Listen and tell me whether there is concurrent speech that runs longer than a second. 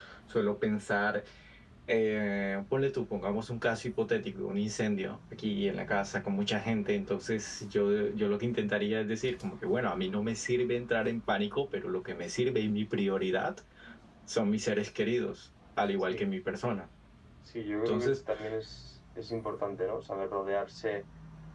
No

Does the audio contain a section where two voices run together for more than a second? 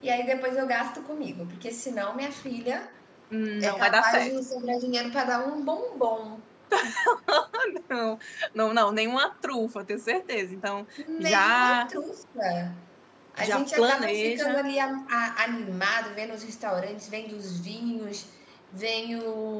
Yes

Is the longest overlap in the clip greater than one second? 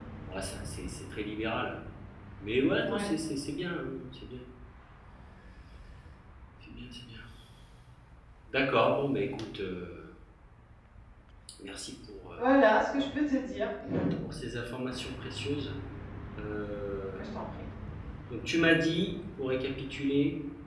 No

